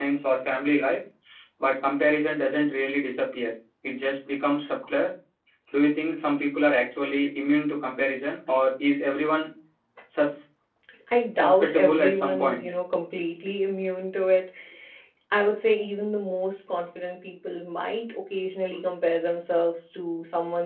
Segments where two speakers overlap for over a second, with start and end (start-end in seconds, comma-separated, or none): 11.3-12.7